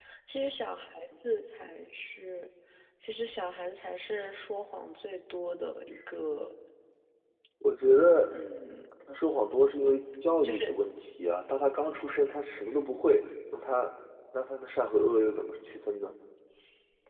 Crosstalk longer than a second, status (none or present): none